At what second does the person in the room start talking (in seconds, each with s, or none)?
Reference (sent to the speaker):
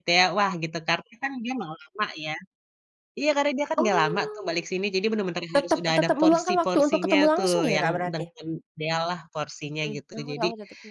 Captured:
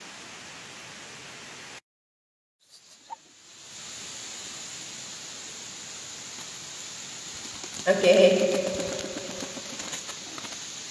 7.8 s